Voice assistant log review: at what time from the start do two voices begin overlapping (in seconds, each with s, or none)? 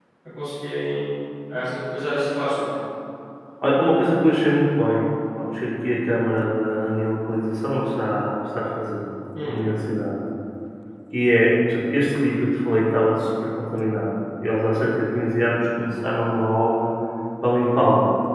none